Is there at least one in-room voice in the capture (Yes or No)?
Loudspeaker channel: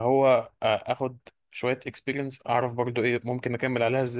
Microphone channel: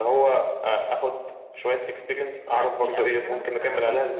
Yes